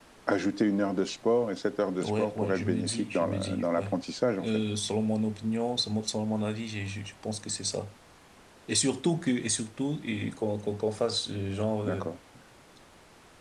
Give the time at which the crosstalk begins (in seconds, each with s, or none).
2.0 s